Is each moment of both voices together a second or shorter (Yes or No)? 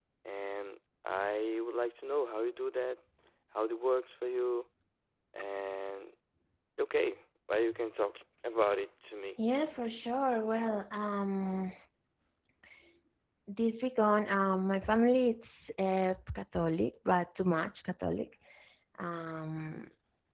Yes